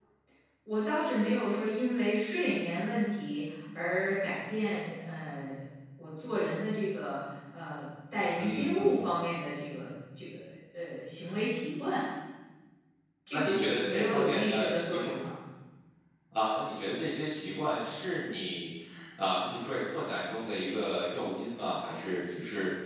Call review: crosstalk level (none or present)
present